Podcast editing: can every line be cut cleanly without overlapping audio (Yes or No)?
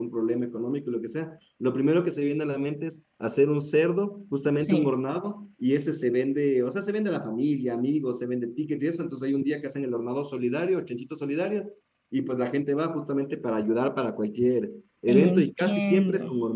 No